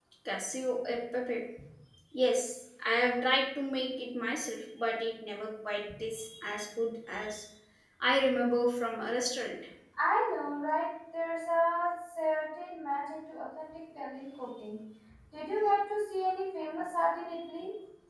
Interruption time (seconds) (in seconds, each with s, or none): none